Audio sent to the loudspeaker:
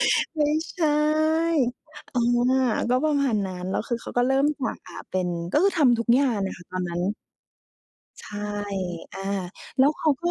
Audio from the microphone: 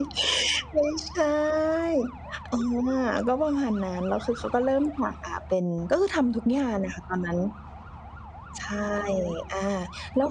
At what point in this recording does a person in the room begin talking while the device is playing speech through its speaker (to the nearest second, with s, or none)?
none